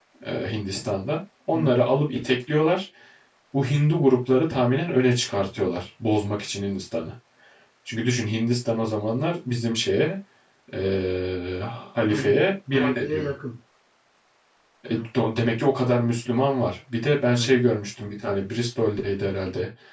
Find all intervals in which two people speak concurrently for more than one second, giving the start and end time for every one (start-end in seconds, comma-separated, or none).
12.1-13.3